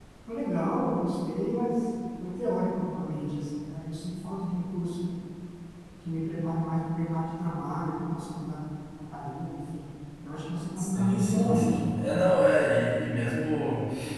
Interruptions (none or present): present